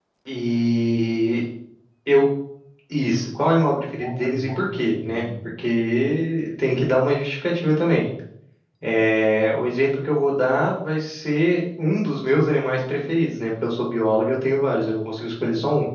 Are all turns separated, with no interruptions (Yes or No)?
No